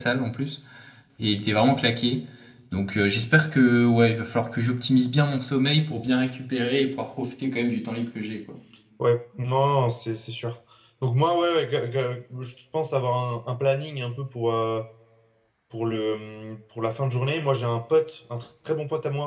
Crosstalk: none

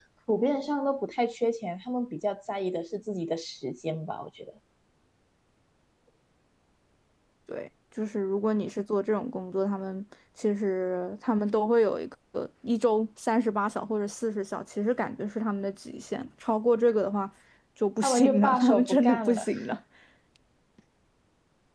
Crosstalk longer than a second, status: present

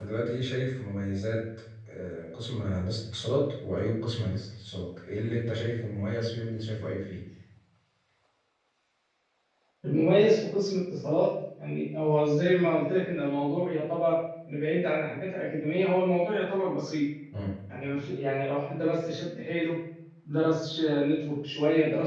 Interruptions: none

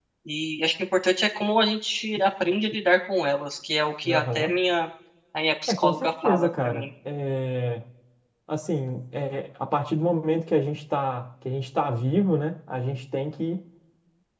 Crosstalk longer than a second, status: present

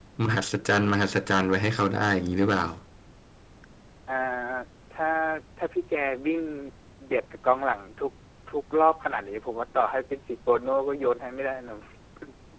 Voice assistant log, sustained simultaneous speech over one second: none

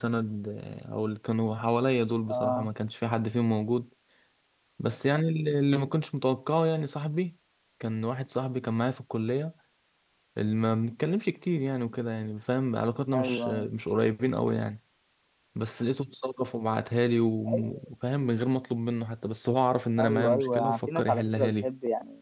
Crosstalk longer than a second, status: present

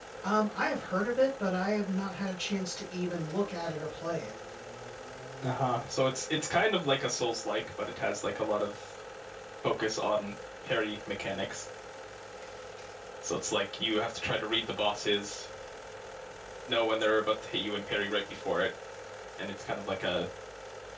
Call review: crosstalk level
none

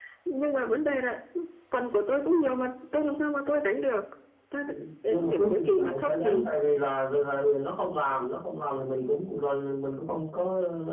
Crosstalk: present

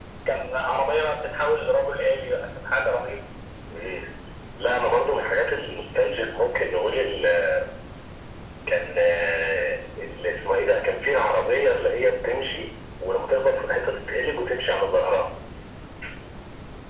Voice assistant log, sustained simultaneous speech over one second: none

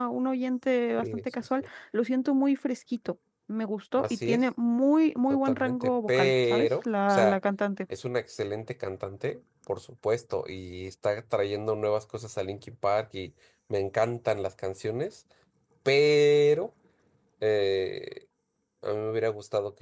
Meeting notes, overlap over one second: present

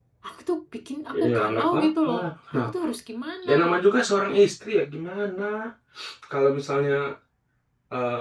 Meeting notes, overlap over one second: present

